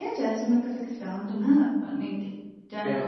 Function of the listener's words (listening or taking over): listening